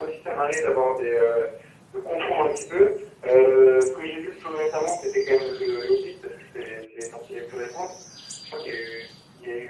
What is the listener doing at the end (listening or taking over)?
listening